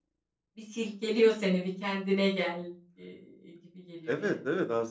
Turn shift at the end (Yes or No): Yes